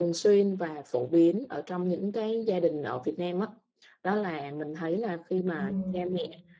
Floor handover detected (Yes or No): No